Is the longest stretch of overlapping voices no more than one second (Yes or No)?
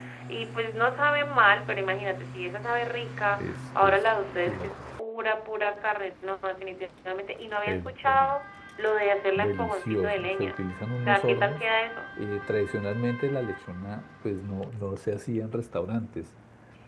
No